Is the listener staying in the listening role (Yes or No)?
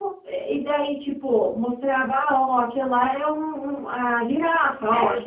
No